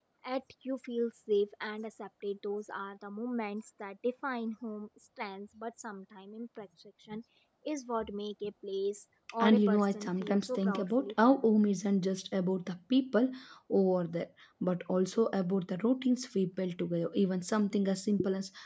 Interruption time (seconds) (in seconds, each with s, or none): 9.4 s